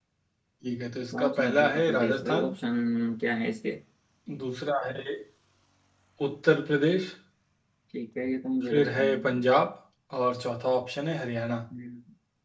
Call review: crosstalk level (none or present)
present